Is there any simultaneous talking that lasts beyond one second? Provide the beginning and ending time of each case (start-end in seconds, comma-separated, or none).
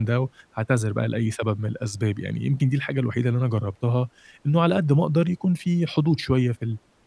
none